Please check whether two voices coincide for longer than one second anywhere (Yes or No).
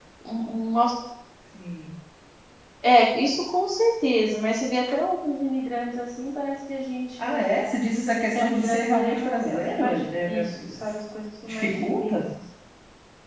Yes